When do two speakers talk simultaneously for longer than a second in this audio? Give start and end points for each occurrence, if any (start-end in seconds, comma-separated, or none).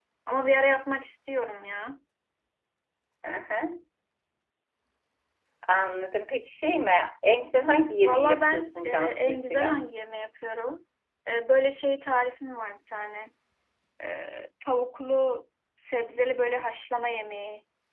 8.0-9.8